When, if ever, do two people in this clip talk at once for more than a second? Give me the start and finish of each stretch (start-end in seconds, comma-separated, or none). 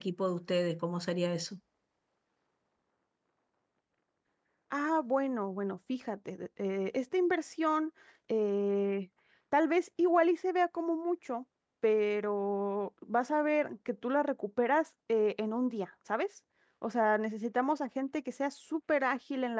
none